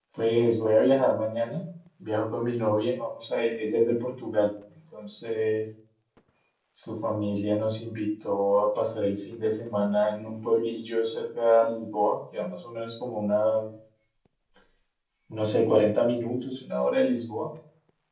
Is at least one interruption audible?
No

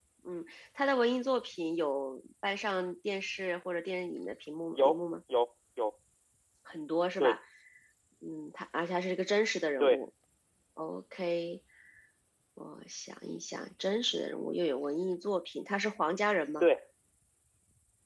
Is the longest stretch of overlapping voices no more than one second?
Yes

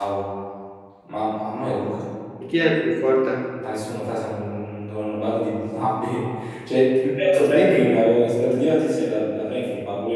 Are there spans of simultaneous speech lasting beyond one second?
No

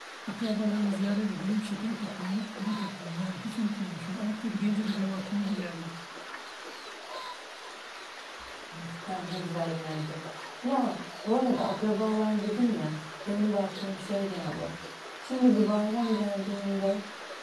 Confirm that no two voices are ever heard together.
Yes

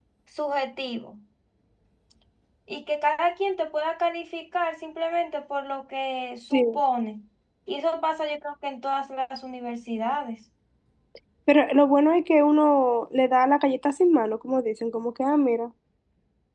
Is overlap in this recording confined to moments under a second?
Yes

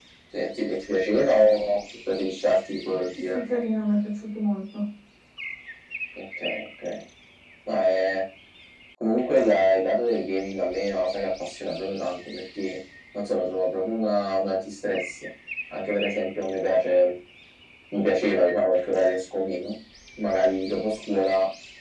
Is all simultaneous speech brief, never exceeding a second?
Yes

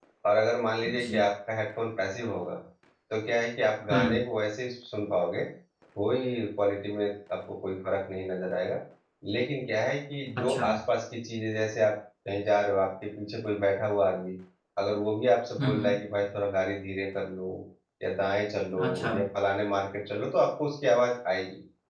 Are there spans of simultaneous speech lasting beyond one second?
No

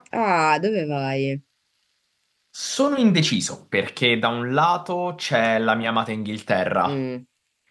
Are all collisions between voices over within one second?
Yes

